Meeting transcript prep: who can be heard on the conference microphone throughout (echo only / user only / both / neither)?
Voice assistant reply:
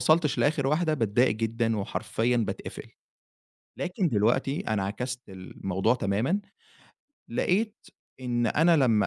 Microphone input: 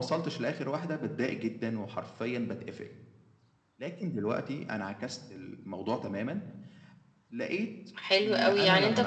both